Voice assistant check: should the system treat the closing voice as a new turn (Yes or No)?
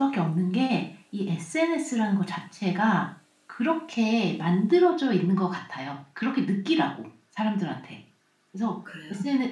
No